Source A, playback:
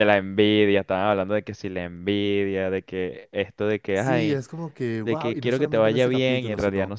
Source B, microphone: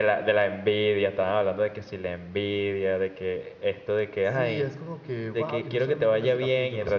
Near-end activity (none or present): none